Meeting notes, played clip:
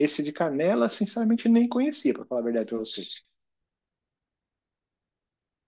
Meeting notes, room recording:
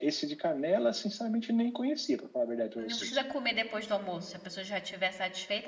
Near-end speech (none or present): present